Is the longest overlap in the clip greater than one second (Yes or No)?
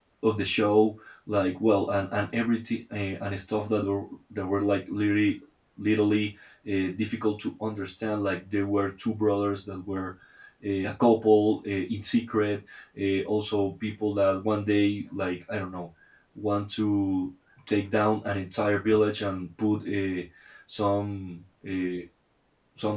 No